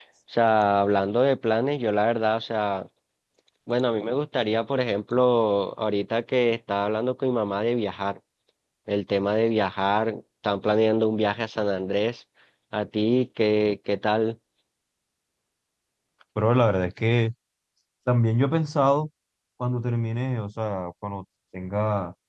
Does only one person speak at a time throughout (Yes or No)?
Yes